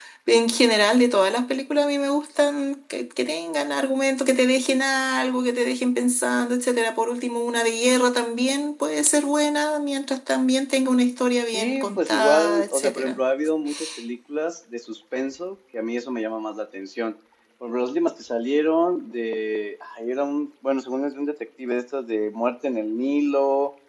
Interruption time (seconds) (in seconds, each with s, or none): 11.5 s